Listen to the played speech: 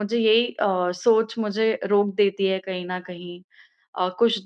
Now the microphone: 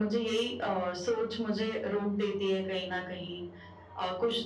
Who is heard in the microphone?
echo only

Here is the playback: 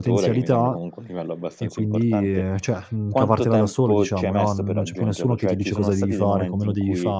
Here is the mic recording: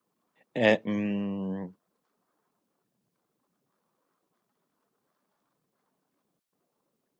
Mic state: user only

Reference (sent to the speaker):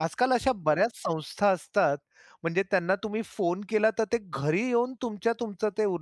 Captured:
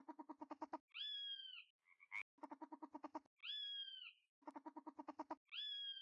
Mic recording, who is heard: neither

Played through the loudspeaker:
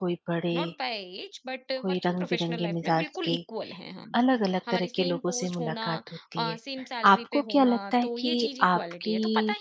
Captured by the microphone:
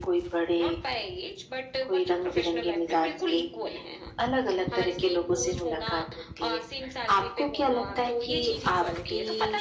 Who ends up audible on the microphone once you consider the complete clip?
echo only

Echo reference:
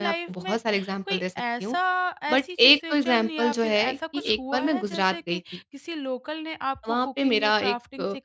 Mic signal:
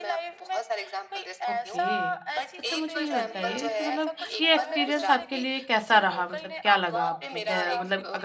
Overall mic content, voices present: both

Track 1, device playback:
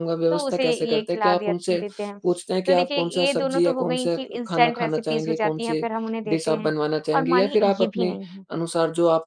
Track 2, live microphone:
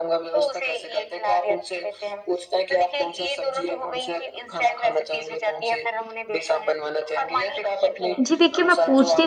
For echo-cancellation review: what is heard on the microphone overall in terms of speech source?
both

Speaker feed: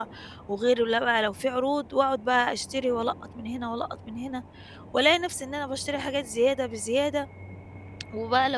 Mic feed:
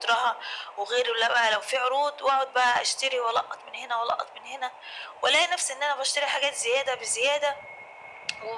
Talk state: echo only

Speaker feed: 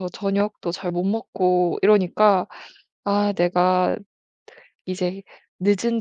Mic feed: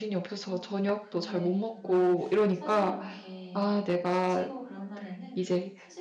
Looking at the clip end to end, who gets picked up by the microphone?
both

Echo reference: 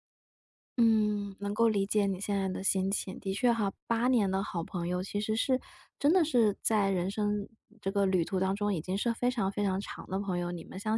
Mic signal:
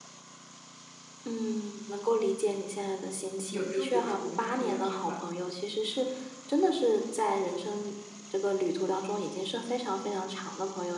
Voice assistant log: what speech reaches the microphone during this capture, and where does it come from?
both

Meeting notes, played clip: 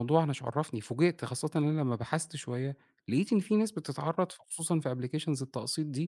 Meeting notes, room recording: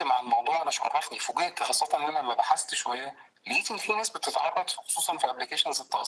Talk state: echo only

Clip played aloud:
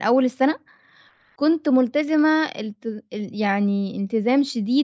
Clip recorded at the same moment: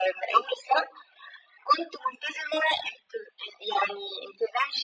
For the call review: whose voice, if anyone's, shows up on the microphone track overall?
echo only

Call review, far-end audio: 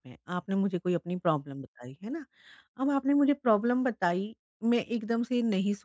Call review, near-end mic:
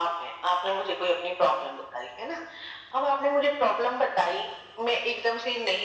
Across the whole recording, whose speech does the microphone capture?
echo only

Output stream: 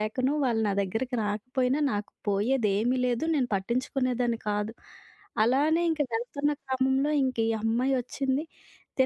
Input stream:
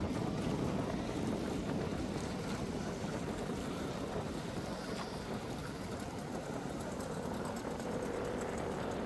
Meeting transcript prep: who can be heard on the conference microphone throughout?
neither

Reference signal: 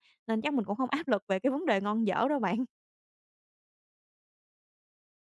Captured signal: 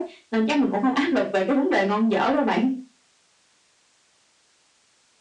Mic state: echo only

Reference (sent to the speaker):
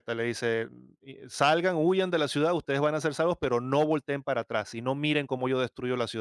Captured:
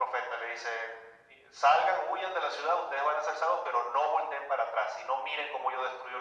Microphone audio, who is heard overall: echo only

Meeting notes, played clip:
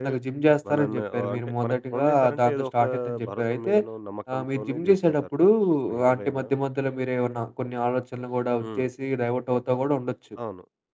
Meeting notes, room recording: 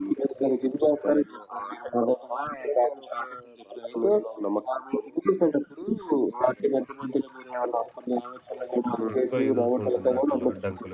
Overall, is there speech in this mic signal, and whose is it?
both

